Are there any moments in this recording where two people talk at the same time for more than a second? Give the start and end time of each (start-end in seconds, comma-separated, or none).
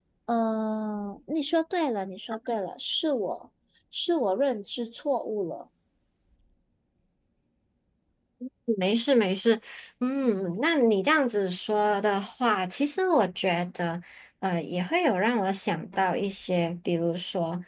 none